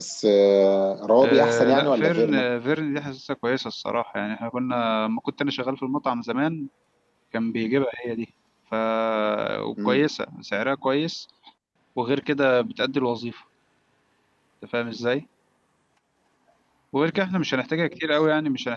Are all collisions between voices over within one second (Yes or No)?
No